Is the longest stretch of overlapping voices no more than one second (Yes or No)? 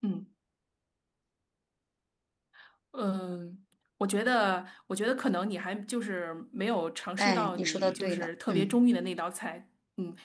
No